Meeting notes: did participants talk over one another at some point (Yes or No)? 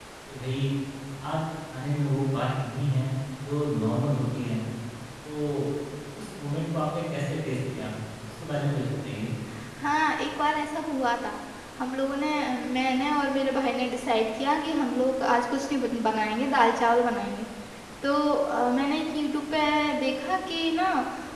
No